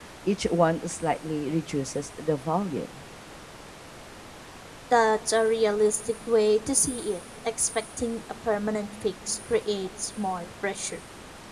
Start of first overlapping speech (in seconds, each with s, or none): none